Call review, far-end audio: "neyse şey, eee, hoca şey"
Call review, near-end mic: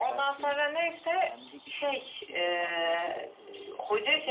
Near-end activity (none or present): present